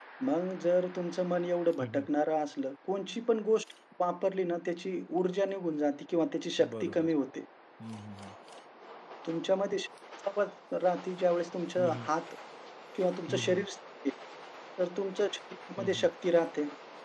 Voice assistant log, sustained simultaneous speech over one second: none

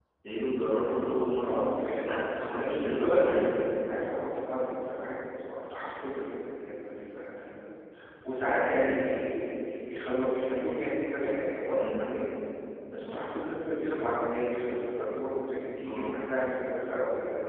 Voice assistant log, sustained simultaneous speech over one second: present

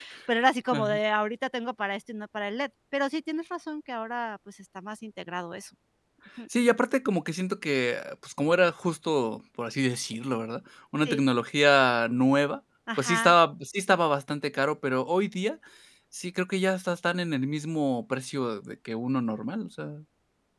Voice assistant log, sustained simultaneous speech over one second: none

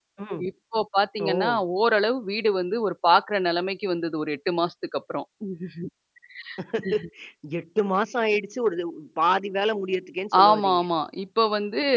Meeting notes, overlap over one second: none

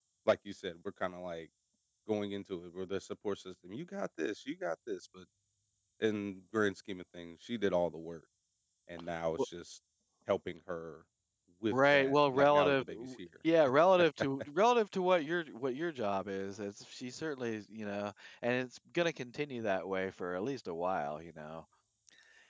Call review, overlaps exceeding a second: present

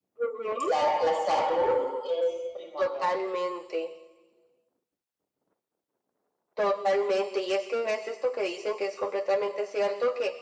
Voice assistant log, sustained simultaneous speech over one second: none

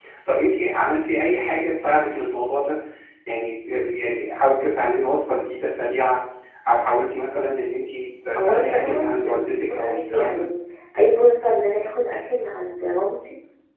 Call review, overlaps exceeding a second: present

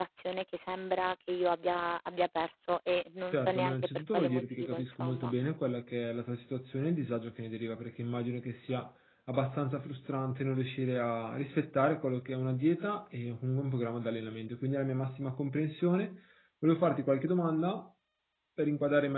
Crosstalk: present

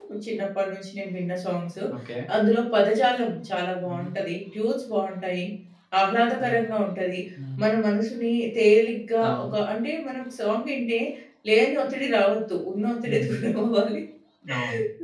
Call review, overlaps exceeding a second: none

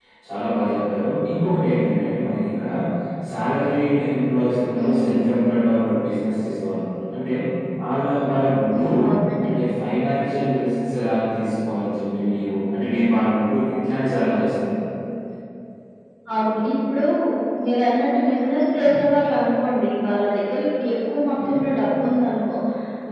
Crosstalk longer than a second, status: none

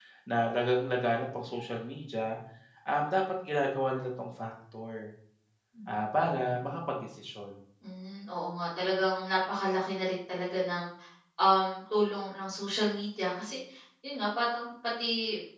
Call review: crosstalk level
none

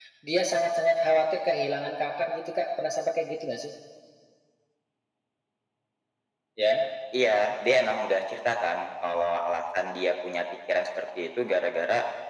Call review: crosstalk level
none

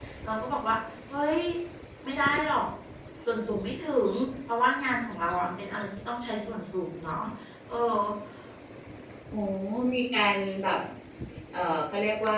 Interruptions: none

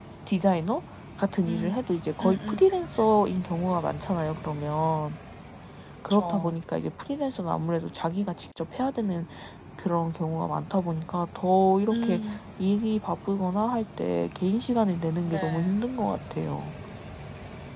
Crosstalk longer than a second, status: none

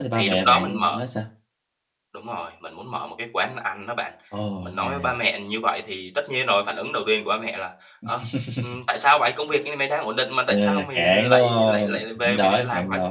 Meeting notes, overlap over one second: present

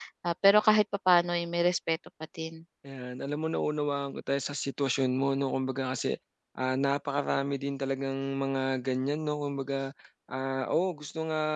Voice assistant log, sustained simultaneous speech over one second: none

